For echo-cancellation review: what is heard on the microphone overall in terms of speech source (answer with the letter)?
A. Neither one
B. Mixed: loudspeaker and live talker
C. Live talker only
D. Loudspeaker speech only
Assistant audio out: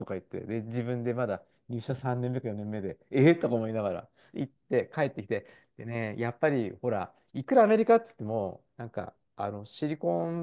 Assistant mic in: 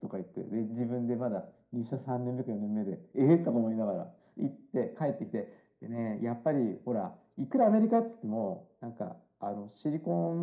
D